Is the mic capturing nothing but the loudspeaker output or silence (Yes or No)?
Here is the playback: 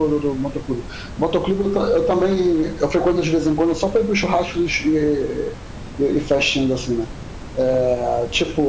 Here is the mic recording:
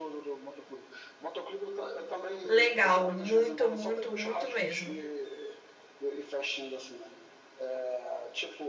No